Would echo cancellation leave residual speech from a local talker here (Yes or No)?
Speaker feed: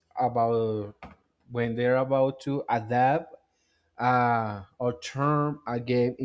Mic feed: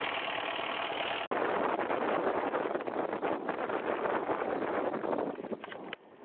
No